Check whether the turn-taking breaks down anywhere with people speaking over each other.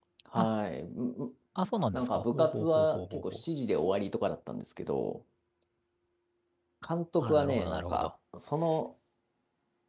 Yes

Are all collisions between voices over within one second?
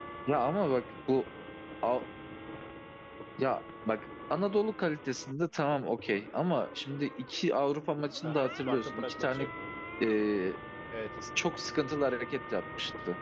No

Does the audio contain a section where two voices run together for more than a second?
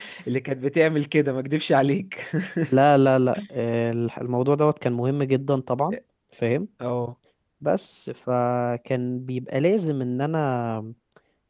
No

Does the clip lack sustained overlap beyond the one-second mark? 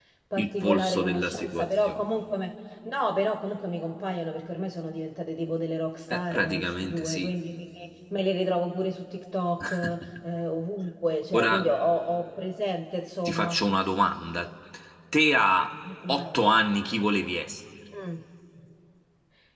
No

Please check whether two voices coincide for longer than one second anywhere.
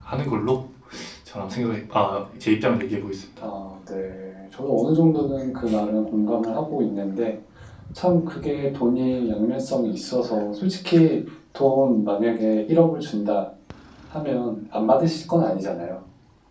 No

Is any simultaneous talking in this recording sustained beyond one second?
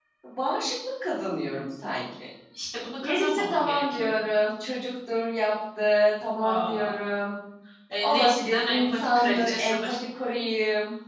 Yes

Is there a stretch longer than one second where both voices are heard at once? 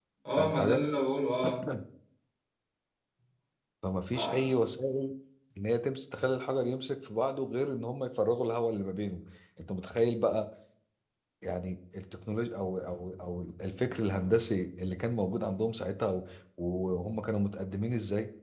No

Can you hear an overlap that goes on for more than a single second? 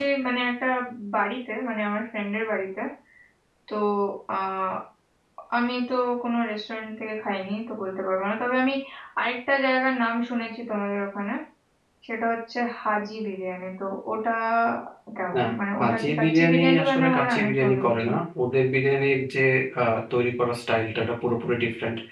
Yes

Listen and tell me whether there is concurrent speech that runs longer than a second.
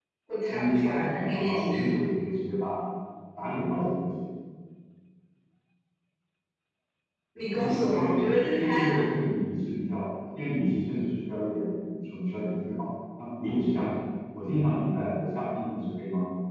Yes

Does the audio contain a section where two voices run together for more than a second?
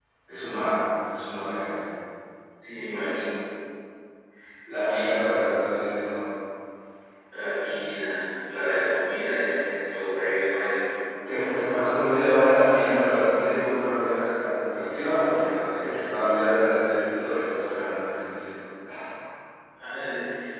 No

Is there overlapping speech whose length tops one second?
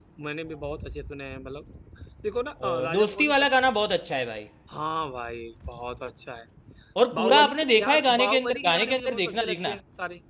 Yes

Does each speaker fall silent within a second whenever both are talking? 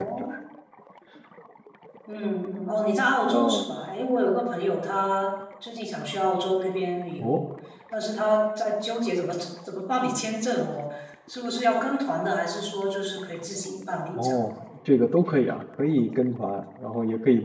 Yes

